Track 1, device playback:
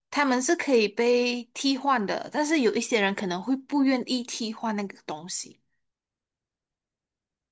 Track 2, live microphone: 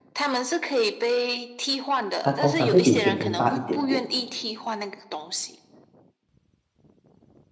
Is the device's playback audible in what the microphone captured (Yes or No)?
Yes